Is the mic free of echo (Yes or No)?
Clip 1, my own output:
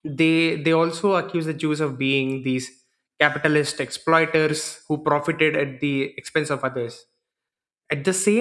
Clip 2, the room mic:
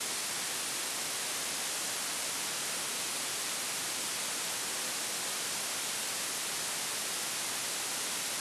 Yes